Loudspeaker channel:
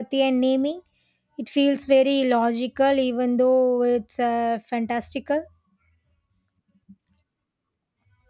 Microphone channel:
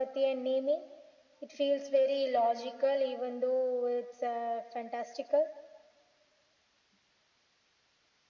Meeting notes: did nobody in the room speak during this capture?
Yes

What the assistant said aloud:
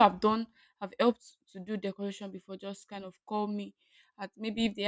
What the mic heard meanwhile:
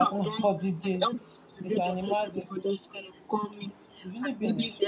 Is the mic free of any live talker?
No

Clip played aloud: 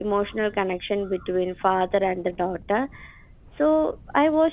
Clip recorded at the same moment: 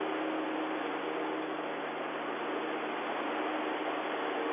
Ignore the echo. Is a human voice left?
No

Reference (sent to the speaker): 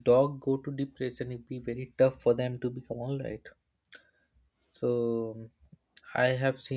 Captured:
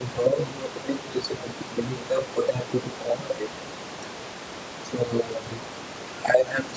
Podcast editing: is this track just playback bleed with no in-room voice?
Yes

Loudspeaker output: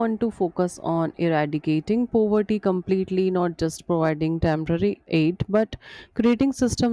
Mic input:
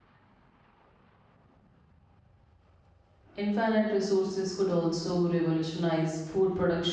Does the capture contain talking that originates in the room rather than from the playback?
Yes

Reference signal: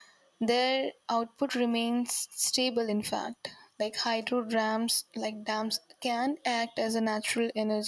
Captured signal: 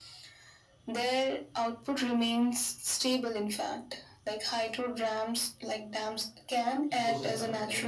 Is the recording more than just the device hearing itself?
Yes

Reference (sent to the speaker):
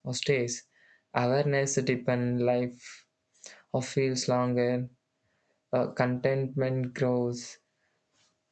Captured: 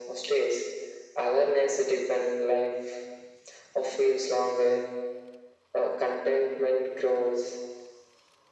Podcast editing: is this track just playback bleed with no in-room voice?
Yes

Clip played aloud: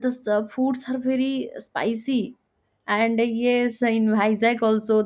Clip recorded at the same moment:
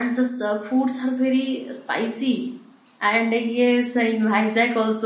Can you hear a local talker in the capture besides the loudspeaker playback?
No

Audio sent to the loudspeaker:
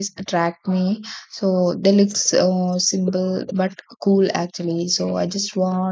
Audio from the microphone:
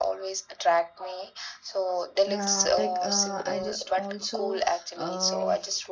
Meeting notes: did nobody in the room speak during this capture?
No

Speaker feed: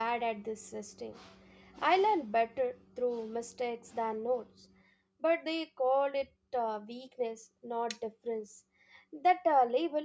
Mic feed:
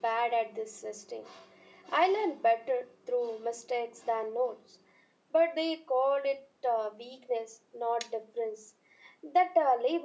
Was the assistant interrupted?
No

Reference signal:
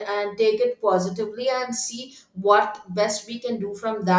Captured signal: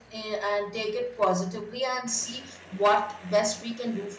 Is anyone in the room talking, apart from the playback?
No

